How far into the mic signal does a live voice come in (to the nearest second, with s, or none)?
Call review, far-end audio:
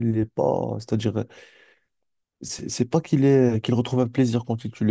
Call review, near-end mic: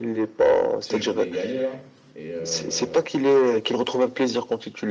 1 s